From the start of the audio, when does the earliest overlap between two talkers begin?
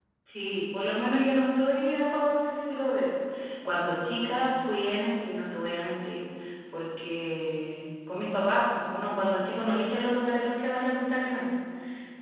none

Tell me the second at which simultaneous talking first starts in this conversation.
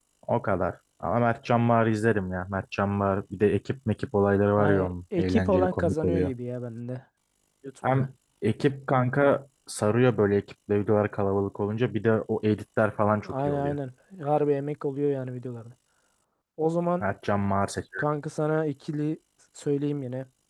4.6 s

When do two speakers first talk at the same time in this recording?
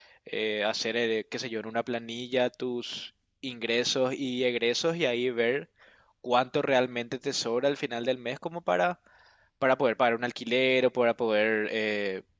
none

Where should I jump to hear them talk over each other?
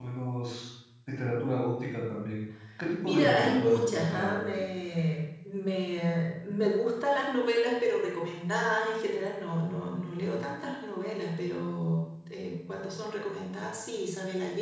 3.0 s

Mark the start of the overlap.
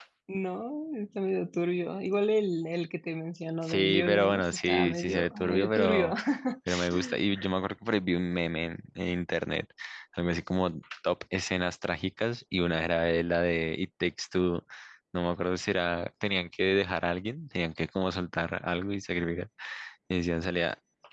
3.6 s

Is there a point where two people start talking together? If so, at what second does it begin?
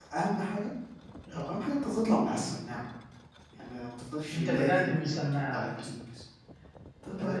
4.3 s

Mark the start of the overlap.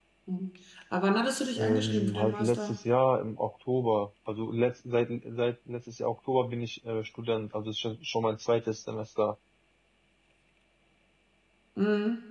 1.5 s

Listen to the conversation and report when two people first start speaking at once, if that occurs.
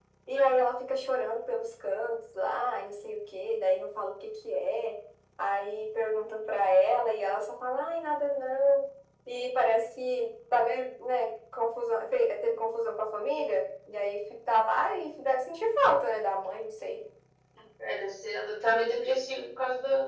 none

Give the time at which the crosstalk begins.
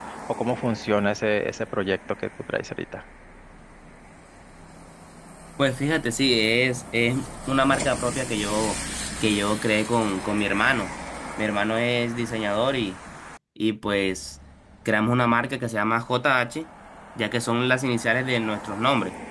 none

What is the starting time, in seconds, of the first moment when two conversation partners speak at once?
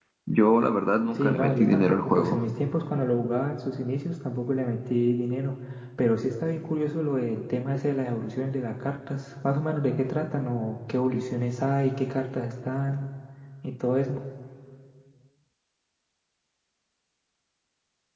1.2 s

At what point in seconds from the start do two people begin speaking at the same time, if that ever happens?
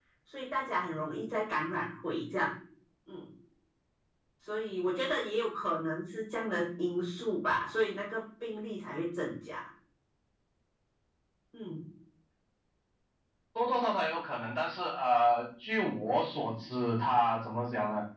none

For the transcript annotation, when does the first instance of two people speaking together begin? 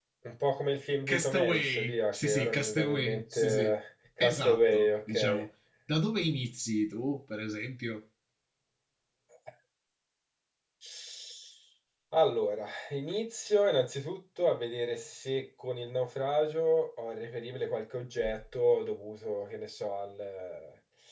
1.1 s

